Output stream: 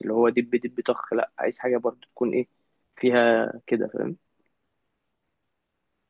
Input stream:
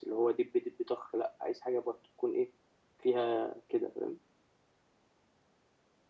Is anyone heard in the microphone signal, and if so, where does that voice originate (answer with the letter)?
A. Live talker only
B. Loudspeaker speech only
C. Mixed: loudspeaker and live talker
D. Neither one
B